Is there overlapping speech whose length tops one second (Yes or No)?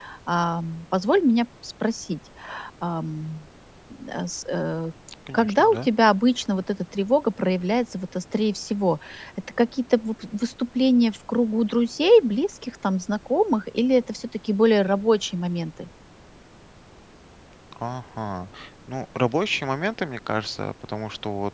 No